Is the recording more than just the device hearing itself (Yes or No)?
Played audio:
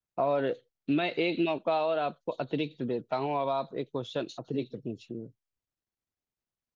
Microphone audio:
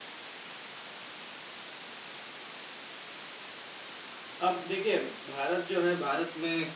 Yes